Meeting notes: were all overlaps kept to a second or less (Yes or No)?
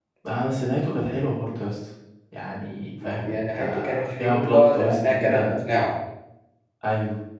No